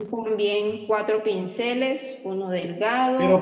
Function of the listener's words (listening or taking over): taking over